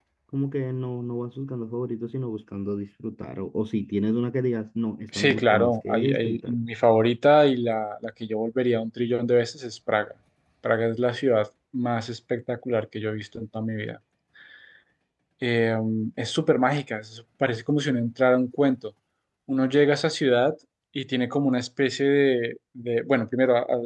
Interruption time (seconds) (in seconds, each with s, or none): 5.1 s